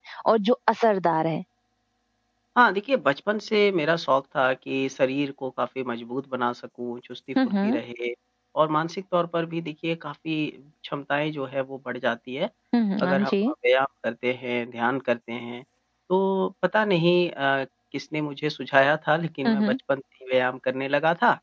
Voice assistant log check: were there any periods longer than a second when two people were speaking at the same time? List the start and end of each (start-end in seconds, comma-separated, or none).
none